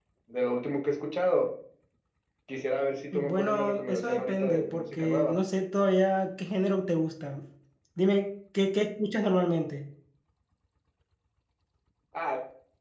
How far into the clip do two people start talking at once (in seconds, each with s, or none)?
3.1 s